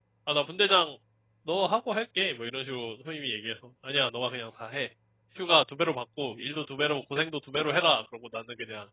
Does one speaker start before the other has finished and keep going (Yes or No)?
No